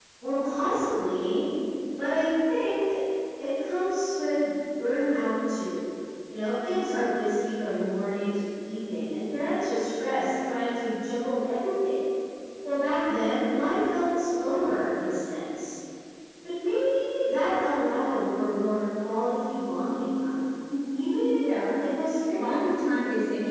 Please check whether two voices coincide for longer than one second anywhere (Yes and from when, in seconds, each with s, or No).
No